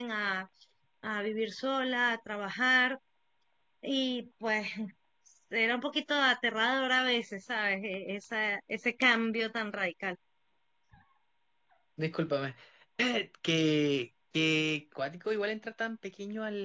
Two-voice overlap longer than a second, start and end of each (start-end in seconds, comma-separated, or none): none